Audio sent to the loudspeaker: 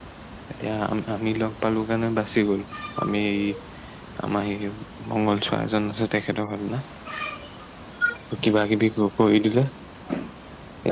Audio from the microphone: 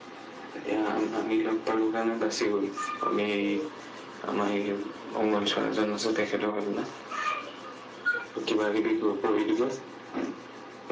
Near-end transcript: none

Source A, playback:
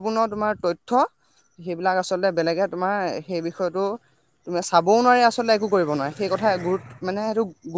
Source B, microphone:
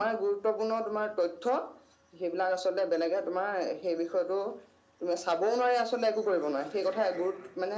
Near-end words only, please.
none

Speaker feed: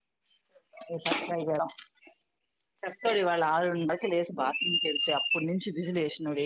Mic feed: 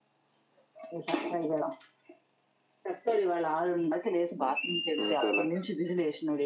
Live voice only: అంతలే

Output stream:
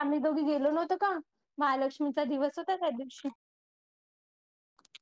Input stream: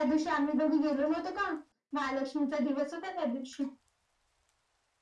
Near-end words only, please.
none

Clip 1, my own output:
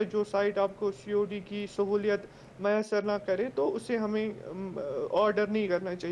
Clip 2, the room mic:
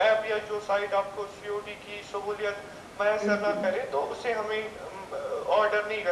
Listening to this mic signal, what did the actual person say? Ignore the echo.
بالکل

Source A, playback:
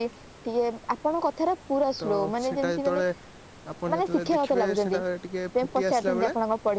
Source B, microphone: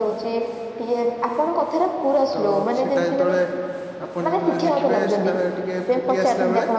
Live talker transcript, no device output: none

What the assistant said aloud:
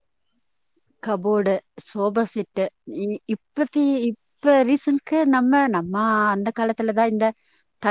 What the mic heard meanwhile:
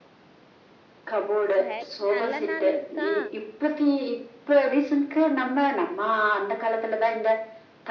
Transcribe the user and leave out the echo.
சேரி நல்ல நாள் இருக்கா

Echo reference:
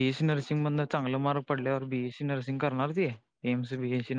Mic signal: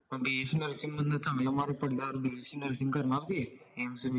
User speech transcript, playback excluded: none

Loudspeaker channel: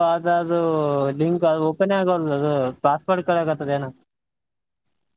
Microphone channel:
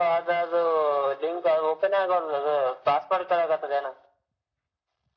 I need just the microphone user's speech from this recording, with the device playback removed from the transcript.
none

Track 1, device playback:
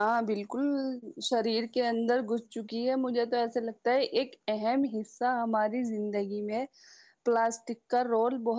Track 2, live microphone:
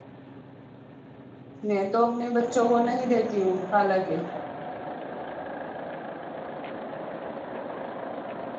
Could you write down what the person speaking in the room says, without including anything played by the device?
میں تو اپنے بچوں کو نہیں دیتی ہوں حالانکہ

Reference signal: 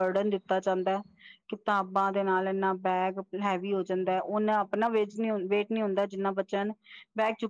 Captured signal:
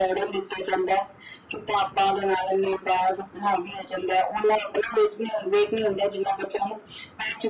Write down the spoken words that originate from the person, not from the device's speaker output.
none

